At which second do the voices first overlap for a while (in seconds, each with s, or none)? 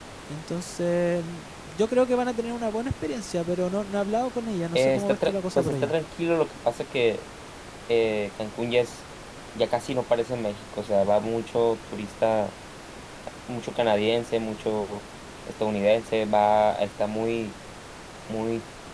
4.8 s